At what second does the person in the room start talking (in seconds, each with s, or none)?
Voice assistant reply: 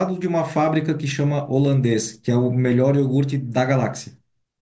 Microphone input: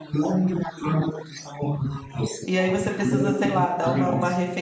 2.4 s